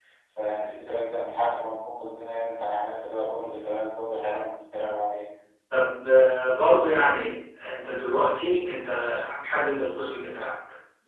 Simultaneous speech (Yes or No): No